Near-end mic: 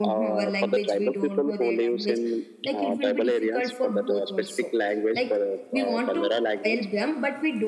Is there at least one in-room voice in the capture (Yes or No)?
Yes